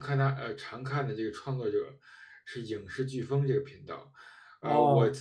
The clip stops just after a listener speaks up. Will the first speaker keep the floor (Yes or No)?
Yes